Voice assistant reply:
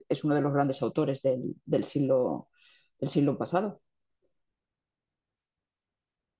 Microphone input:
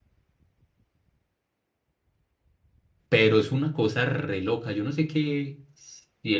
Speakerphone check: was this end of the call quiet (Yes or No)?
No